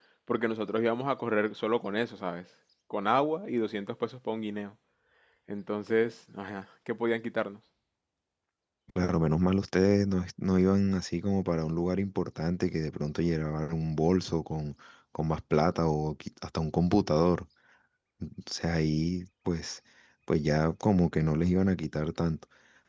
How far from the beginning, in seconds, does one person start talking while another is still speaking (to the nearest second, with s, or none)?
none